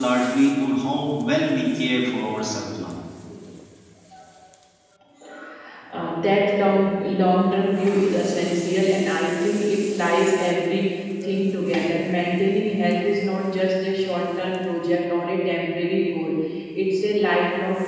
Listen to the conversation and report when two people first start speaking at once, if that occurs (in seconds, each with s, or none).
none